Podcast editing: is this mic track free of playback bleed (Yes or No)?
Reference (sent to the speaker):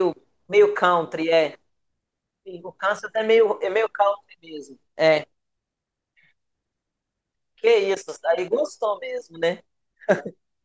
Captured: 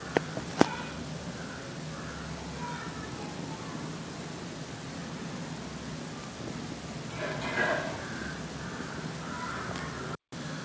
Yes